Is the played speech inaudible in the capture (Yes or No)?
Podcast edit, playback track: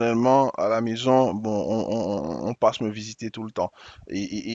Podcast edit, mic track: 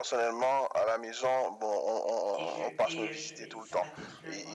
No